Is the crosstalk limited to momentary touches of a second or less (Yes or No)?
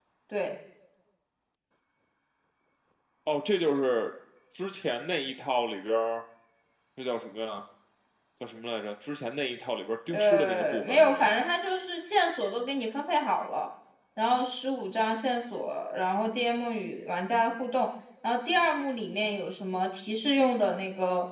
No